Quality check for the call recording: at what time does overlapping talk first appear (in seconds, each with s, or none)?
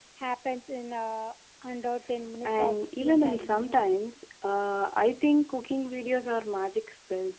2.4 s